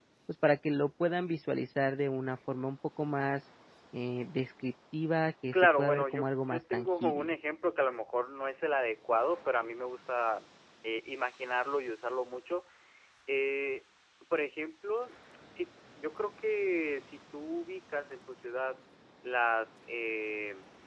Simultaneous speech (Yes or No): Yes